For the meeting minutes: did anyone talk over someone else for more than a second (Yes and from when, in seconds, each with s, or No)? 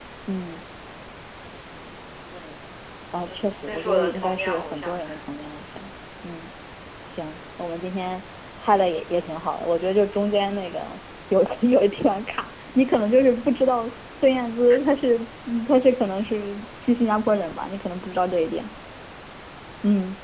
Yes, from 3.2 s